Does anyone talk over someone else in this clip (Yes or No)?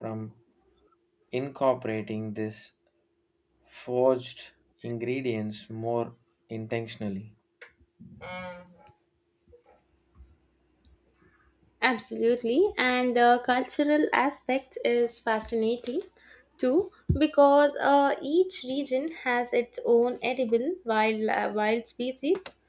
No